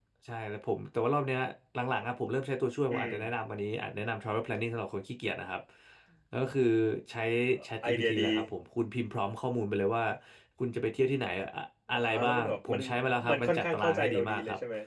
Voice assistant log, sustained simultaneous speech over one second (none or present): present